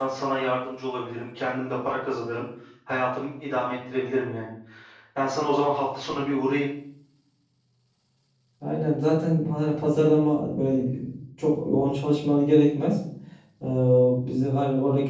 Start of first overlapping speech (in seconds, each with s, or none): none